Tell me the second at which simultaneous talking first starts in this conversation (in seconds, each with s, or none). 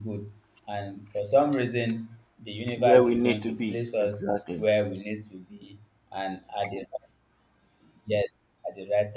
2.8 s